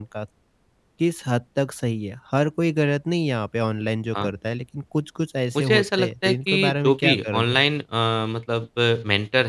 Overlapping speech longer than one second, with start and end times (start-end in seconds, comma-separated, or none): 5.6-7.6